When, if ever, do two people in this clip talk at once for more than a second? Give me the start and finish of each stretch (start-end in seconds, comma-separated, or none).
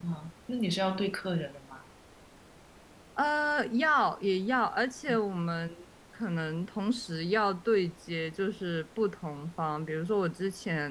none